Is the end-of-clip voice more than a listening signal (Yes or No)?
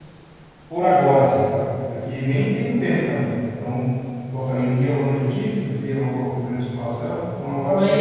Yes